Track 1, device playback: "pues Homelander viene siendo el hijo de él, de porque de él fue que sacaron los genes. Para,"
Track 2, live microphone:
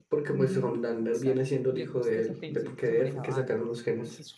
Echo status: present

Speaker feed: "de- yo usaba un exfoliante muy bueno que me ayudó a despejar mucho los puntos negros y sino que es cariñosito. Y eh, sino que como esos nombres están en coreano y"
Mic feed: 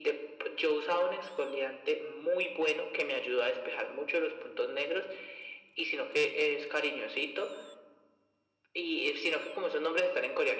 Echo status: present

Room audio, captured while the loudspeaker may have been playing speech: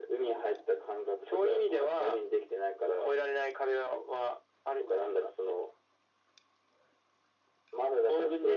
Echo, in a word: present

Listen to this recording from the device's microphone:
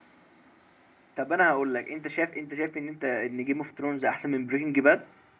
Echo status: none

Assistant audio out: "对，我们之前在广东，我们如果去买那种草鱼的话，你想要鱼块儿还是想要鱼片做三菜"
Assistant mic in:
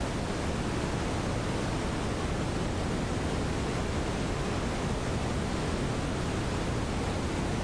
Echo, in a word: none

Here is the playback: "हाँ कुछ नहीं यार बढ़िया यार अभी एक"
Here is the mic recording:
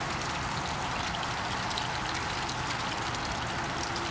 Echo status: none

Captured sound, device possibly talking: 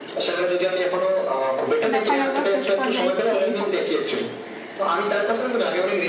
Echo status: present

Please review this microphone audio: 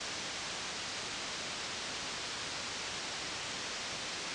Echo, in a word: none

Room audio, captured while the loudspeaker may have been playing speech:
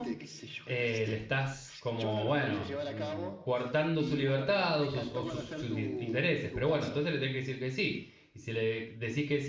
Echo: present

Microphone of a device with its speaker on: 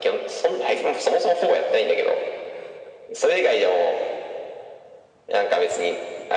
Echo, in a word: present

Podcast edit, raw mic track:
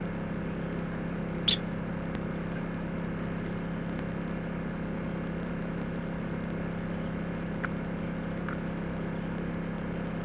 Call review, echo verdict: none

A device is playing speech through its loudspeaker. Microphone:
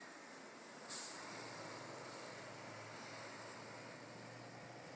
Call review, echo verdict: none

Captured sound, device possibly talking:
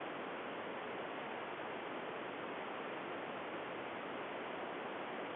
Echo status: none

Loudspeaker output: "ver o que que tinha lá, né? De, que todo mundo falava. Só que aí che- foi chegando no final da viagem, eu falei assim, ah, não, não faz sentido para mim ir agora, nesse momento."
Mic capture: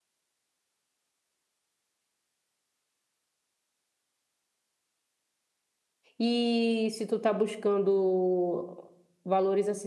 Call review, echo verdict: none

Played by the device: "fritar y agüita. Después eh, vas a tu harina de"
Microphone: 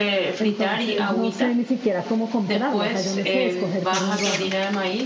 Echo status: present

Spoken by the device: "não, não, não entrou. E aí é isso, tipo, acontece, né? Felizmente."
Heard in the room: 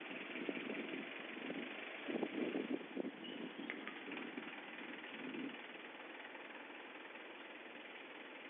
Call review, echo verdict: none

